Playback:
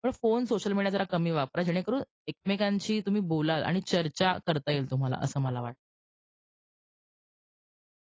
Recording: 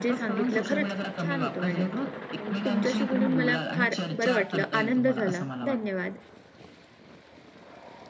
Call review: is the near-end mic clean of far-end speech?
No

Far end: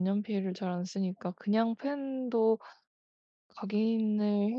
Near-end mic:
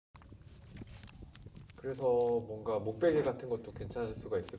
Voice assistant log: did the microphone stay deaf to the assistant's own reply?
Yes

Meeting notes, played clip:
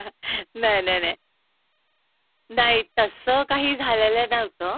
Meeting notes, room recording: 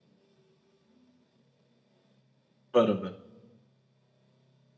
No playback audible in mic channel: Yes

